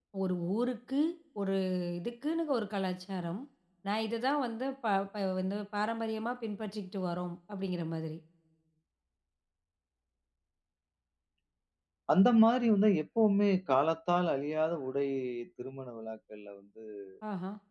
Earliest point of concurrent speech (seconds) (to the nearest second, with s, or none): none